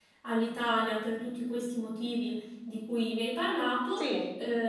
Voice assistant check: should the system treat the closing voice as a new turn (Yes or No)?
No